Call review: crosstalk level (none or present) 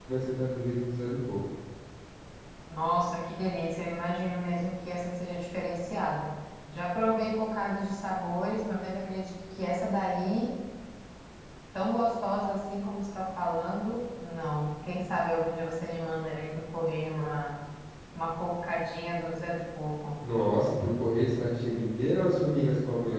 none